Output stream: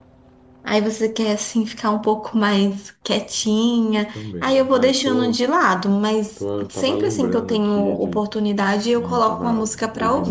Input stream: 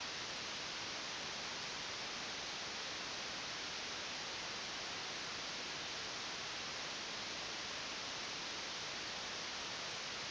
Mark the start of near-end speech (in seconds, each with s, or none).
none